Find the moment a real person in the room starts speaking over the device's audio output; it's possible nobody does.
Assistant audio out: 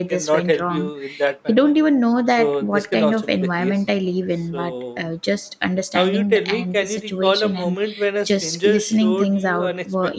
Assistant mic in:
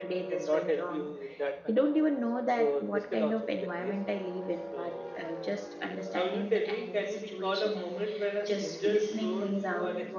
none

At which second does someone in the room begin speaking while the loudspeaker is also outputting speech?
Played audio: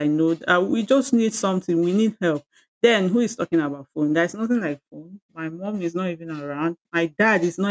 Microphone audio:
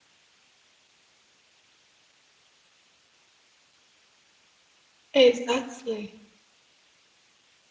5.2 s

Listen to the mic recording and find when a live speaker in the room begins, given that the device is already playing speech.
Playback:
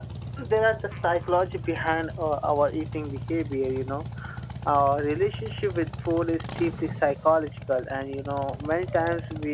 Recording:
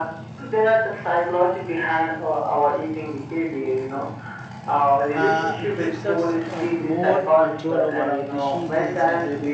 5.1 s

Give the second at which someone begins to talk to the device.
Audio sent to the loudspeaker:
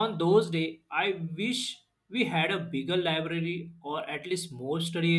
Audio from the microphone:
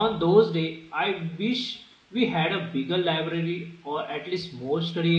none

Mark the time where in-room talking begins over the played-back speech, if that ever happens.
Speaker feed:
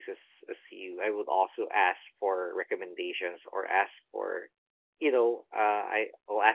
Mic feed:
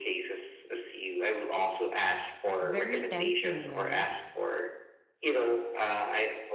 2.6 s

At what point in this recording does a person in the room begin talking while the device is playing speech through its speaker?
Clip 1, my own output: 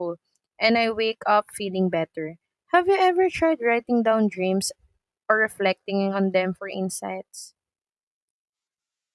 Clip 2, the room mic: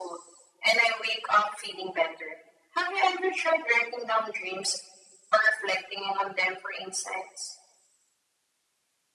none

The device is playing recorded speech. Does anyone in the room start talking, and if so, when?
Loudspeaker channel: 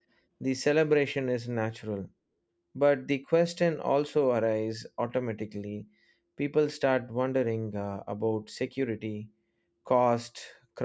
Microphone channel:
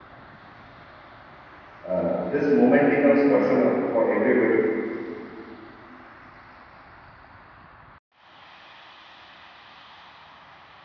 1.9 s

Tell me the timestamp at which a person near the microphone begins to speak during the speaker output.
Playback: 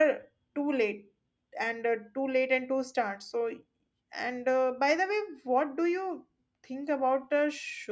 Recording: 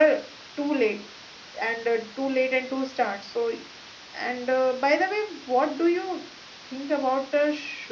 none

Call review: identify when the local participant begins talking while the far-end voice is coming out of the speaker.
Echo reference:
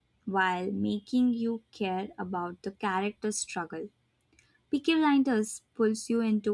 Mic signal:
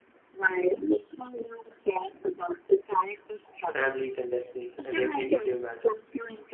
3.6 s

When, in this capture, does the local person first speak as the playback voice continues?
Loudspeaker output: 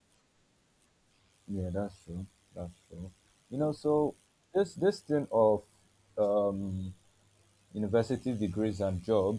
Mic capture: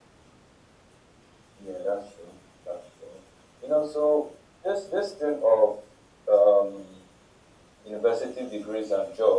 none

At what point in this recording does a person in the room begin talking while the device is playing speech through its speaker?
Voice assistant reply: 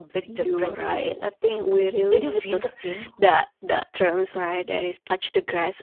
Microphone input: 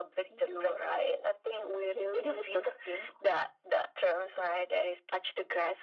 none

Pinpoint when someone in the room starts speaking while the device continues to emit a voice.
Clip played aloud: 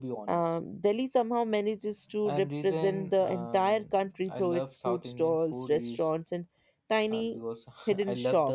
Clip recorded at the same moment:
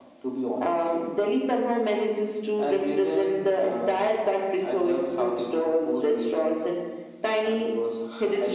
none

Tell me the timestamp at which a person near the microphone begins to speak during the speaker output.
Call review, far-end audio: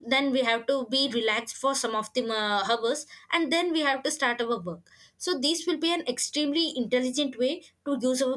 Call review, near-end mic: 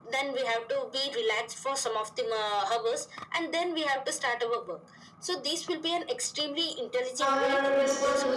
7.2 s

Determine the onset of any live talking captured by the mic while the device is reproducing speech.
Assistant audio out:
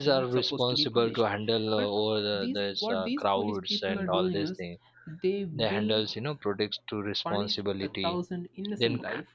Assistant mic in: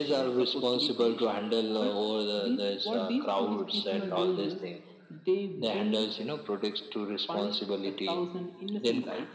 none

